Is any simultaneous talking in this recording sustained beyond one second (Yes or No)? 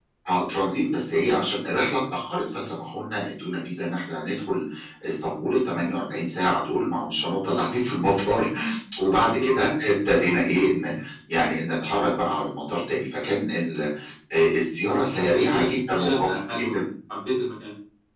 Yes